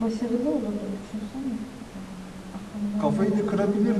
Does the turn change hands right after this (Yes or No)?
Yes